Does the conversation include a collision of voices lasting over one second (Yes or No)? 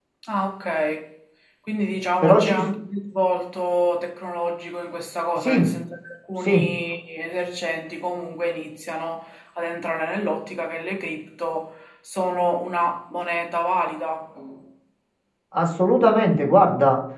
No